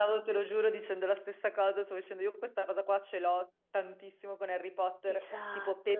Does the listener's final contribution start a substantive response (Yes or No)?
No